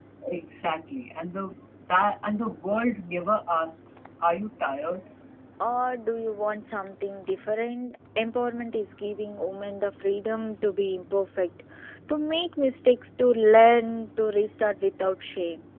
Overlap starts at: none

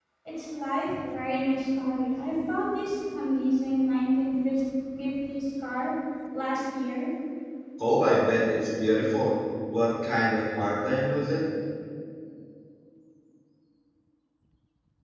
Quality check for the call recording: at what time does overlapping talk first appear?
none

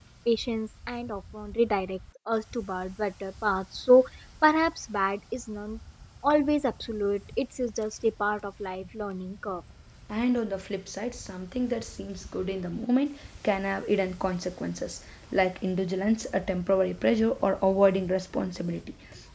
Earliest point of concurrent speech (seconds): none

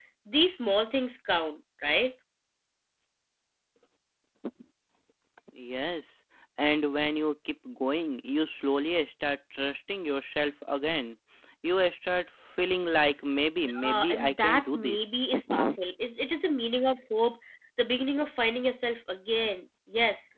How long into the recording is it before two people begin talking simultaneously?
13.6 s

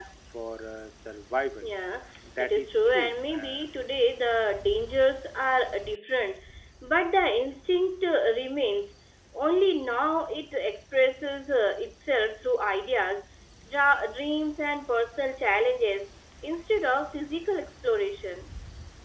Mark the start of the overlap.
2.4 s

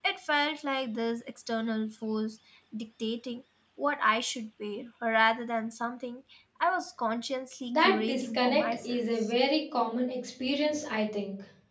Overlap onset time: 7.7 s

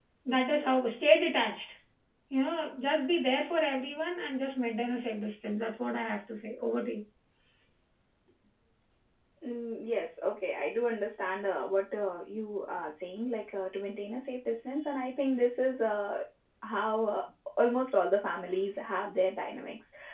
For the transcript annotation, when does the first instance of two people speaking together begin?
none

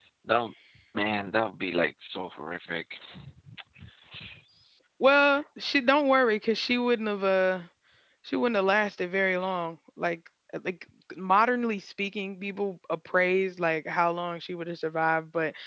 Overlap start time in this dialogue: none

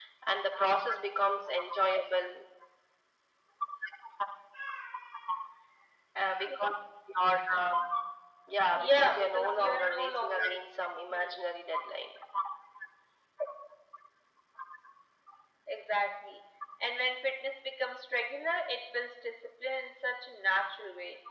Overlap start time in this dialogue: 8.7 s

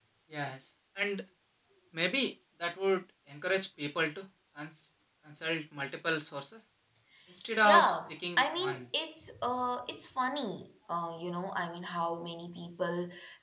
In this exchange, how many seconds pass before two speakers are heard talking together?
7.6 s

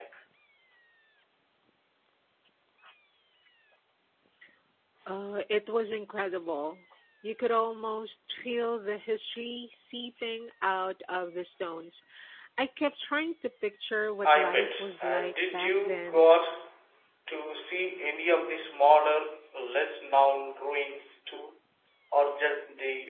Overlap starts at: 14.2 s

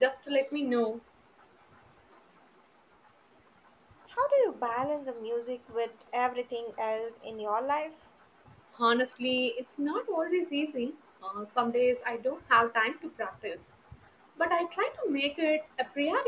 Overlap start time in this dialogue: none

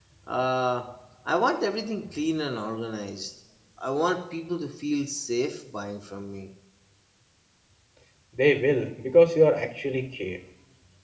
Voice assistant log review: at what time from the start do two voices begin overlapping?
none

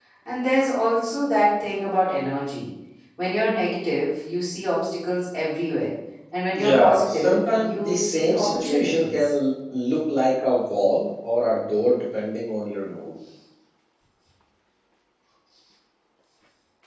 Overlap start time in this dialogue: 6.5 s

